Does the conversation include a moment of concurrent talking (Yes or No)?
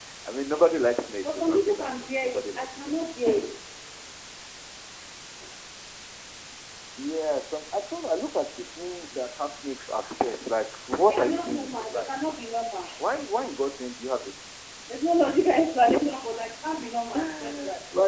Yes